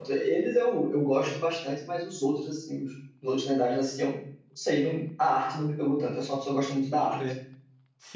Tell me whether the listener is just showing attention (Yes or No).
No